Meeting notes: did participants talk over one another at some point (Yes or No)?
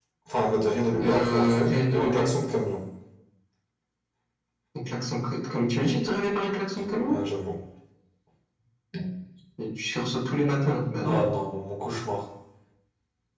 Yes